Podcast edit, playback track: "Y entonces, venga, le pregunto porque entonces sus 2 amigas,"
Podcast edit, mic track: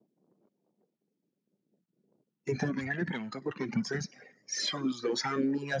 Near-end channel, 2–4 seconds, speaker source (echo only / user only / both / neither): echo only